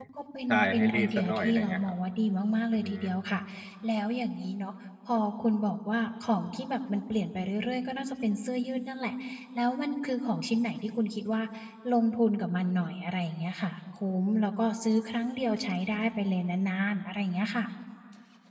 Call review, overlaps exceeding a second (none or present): present